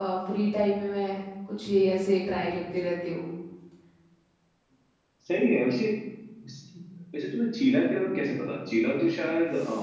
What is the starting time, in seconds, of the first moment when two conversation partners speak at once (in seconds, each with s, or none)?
none